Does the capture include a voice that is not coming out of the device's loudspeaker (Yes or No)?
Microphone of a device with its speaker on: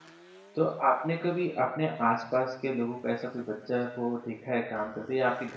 Yes